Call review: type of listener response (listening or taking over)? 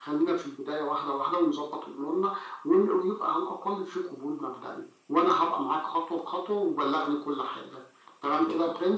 taking over